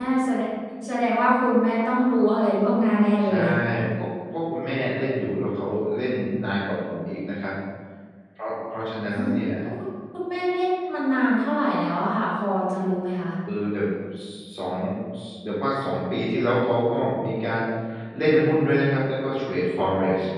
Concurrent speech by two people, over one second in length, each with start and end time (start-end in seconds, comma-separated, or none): none